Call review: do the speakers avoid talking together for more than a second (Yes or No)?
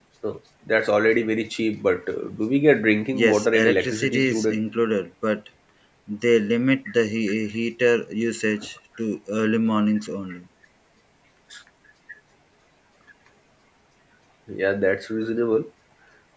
No